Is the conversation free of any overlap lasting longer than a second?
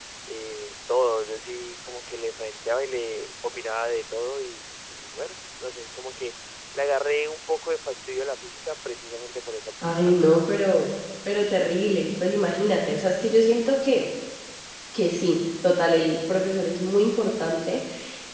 Yes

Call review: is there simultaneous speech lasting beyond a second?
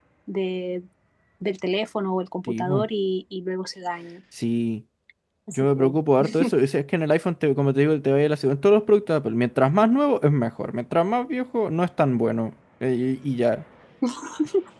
No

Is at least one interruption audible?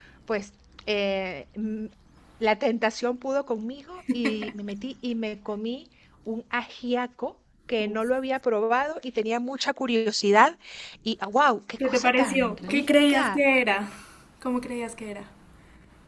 Yes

